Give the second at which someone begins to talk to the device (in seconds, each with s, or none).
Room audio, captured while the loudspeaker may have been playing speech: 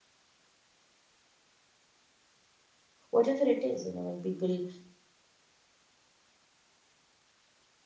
3.1 s